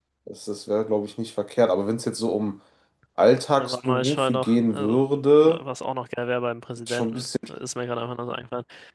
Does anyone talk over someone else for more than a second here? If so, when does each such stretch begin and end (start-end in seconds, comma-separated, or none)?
3.6-5.0